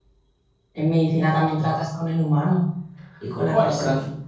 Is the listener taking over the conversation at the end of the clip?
Yes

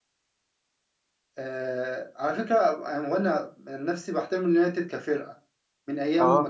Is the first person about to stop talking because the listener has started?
No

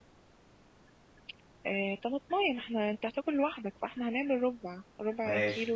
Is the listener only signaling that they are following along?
No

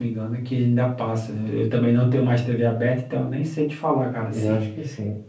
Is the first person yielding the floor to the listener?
Yes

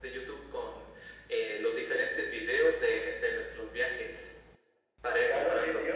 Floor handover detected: Yes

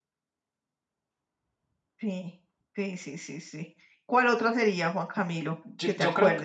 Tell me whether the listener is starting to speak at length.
Yes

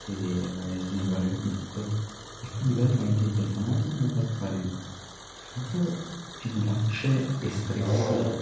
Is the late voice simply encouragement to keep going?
Yes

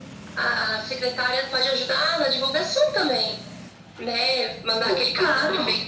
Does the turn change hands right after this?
No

